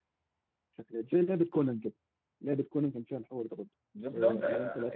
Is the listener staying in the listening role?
No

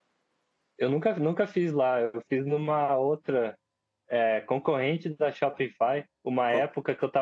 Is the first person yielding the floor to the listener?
No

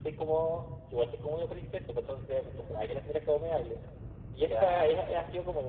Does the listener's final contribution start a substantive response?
No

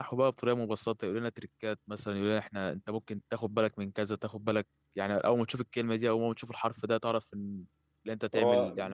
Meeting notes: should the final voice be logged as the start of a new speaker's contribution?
Yes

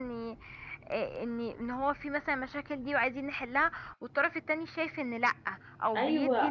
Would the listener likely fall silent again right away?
No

